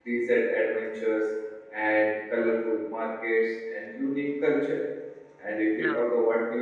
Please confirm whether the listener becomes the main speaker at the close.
No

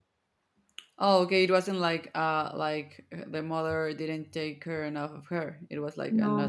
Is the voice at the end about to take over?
Yes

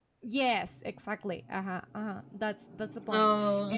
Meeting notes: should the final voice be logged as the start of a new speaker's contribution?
No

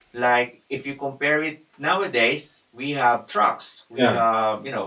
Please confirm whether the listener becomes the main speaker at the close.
No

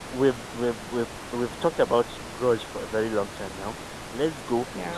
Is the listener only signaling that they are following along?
Yes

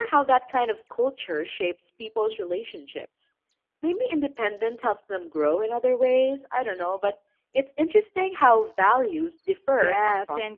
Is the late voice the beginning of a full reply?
Yes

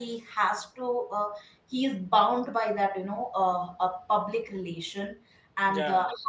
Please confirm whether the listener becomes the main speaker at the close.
No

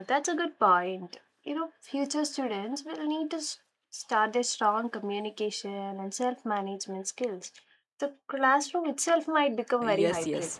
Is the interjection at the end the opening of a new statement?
Yes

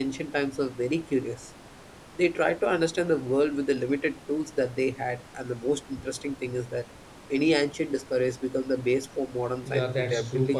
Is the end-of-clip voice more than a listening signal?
Yes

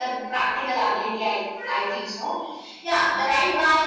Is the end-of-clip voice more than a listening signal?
No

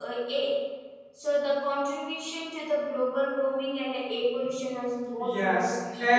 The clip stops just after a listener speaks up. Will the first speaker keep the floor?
No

